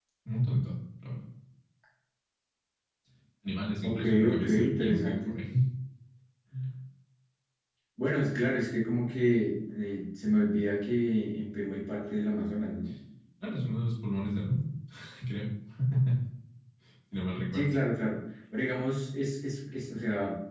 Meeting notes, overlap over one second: present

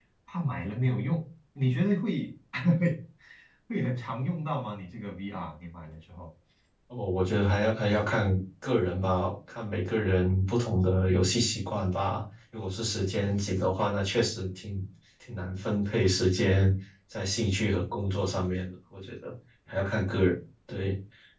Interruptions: none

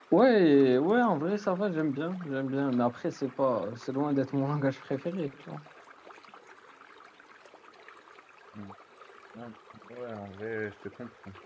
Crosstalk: none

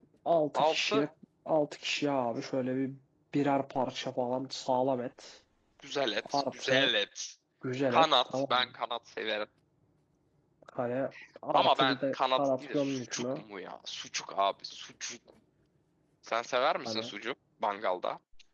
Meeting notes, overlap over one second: present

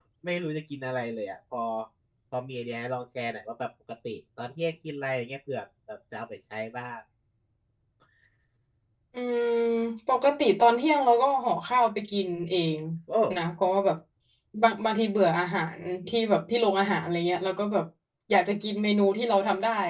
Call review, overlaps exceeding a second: none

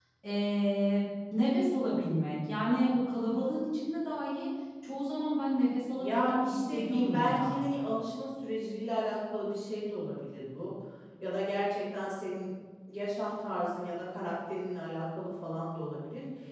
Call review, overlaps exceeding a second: present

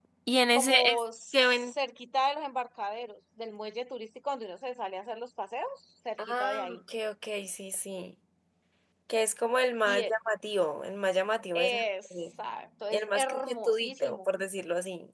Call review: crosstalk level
present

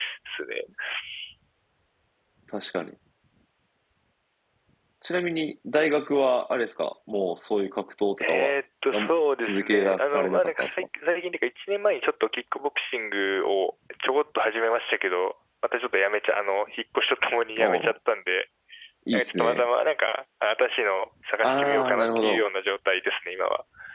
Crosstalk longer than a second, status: present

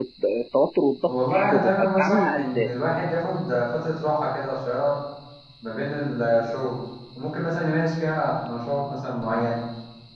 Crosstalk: present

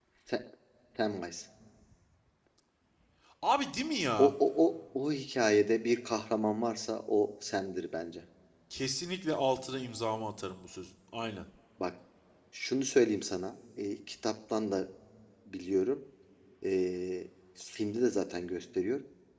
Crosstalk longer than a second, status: none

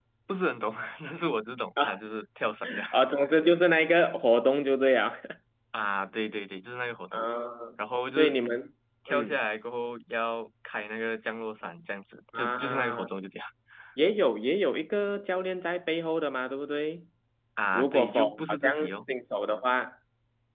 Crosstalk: present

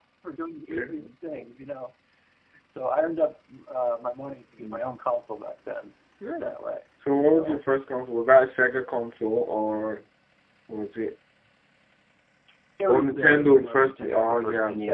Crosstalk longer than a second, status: present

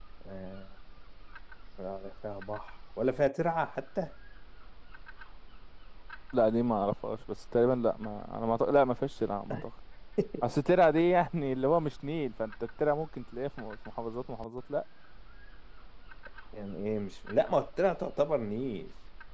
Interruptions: none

